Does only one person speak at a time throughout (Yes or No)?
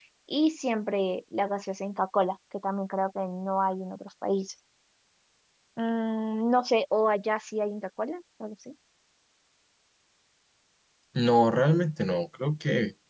Yes